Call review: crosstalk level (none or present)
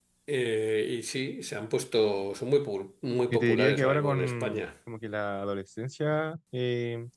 present